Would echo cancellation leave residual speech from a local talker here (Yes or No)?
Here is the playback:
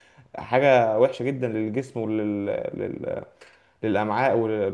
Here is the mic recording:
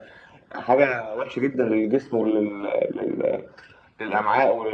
No